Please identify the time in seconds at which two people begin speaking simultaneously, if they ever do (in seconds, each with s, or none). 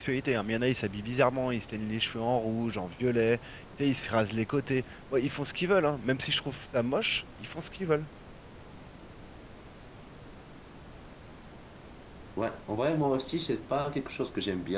none